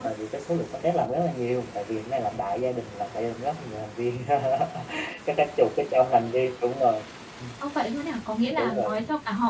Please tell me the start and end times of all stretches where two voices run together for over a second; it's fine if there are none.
none

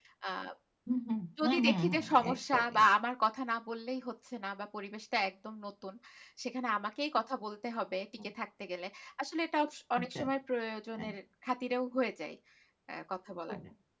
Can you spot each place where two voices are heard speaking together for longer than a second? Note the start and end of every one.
1.4-2.8

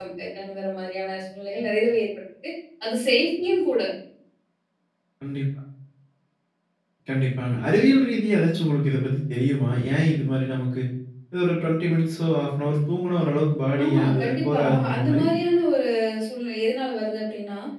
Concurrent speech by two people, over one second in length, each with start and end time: 13.8-15.2

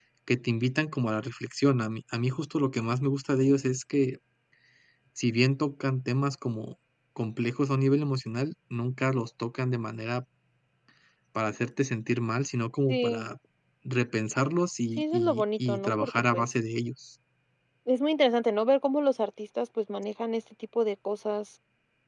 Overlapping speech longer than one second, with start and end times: 15.0-16.4

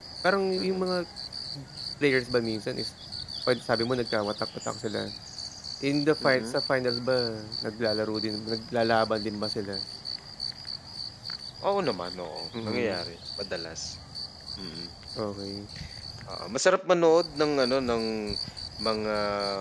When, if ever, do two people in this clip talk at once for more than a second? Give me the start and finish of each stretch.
none

